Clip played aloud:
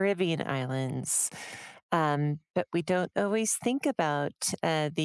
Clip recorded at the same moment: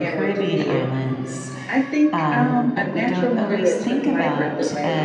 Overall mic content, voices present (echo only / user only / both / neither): both